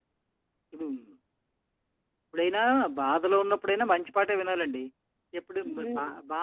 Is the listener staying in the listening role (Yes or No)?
Yes